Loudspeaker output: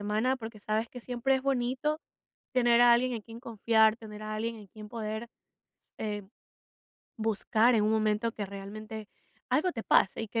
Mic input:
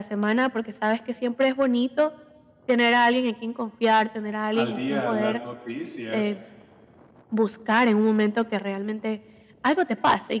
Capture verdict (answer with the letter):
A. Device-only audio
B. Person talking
B